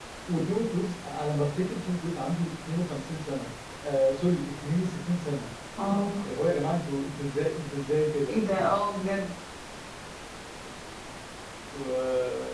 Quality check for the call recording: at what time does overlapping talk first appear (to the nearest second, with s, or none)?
none